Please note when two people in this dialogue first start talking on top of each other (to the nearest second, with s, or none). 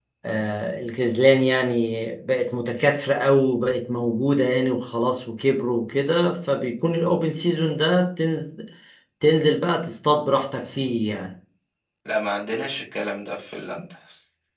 none